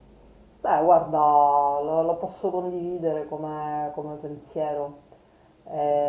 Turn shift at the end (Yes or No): No